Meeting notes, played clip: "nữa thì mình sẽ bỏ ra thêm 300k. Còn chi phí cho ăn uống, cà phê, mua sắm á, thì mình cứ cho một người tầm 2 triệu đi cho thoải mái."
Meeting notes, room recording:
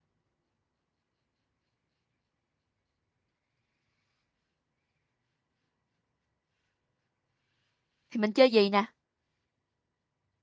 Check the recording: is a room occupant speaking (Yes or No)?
Yes